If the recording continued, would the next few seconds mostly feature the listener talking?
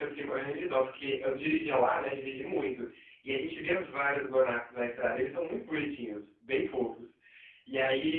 No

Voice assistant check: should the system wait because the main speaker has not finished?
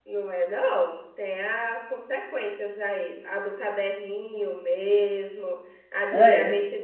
Yes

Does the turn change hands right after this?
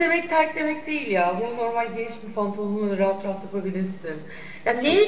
No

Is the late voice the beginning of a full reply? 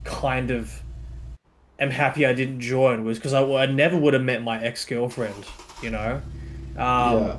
No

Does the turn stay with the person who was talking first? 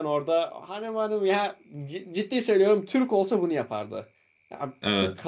Yes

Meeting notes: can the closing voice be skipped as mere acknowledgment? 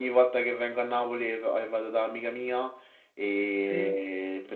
Yes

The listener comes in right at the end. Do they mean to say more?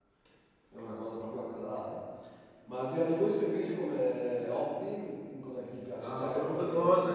Yes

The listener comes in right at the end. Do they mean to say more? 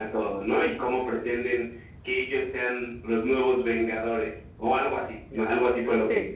Yes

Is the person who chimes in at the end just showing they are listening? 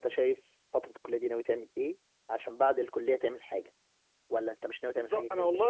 No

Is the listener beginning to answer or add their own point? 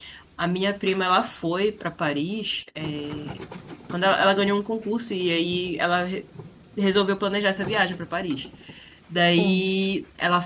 No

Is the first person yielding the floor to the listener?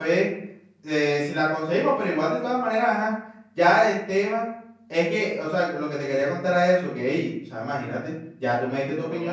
No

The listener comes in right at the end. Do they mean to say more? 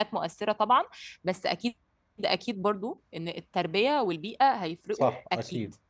Yes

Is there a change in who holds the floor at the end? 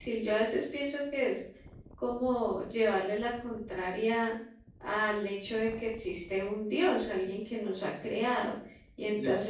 No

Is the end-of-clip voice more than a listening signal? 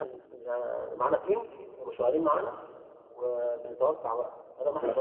No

